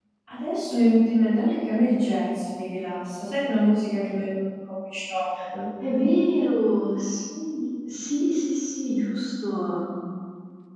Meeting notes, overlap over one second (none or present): none